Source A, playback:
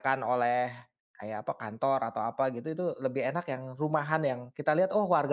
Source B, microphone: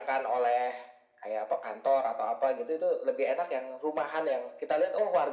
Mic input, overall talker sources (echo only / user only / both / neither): echo only